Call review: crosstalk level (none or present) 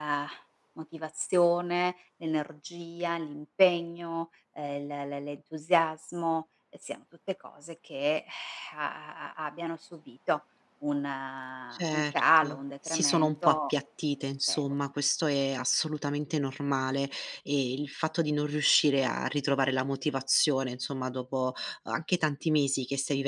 present